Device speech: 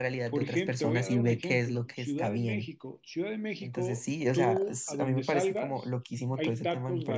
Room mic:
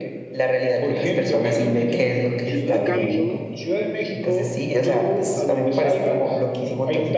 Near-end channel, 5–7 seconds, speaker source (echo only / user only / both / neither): echo only